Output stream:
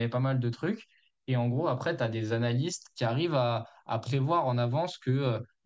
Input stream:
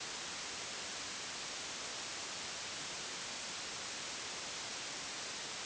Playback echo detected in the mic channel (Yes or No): No